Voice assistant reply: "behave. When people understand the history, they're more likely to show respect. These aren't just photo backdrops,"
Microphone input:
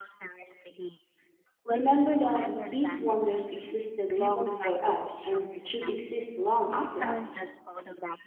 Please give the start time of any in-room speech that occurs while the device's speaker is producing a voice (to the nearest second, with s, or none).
2 s